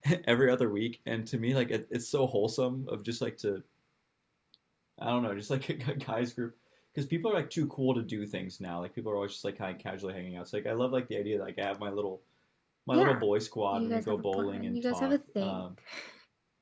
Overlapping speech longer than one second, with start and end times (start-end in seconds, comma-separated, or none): 13.7-15.6